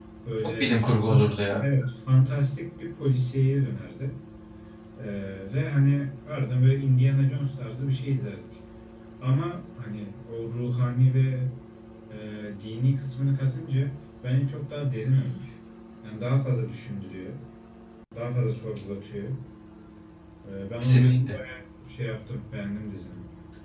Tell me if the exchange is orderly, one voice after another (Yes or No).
No